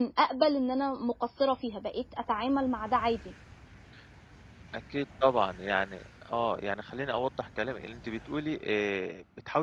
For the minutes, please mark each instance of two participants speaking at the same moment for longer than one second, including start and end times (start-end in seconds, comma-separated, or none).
none